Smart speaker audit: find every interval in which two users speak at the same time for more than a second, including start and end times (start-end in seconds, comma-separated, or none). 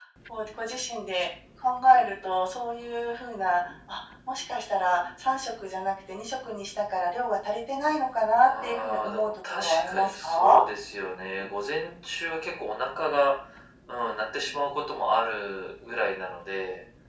8.4-10.6